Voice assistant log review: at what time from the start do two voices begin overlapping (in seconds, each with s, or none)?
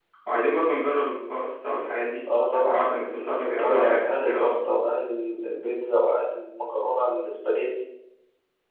2.5 s